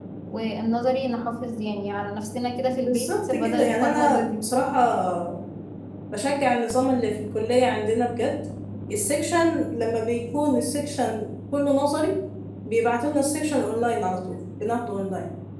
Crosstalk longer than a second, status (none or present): present